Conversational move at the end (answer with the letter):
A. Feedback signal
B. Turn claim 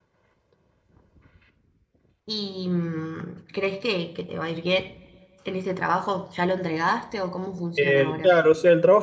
B